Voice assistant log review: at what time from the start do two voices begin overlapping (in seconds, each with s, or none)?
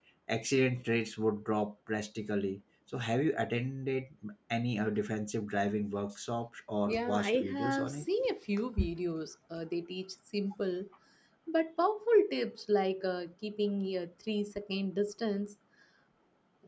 6.8 s